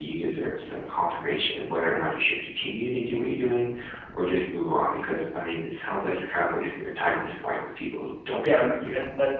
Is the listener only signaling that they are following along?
No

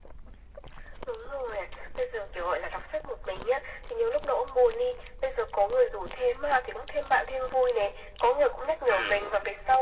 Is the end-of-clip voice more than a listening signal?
No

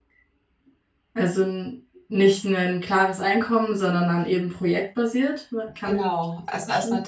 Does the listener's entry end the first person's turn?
Yes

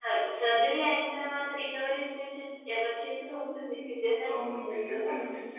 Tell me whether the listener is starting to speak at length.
Yes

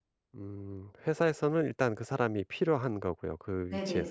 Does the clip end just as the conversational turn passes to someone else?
Yes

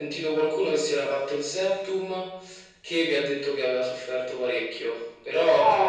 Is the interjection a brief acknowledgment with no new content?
Yes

